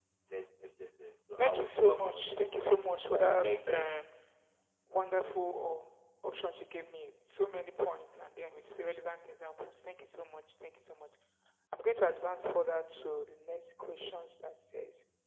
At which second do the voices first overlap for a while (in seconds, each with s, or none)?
1.4 s